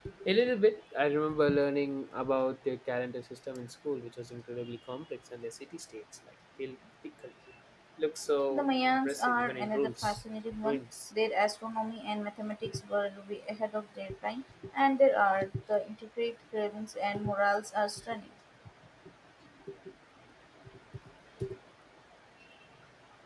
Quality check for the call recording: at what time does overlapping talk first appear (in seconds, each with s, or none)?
8.5 s